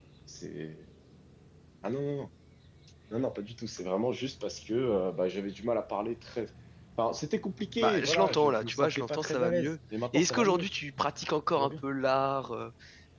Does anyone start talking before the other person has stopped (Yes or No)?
Yes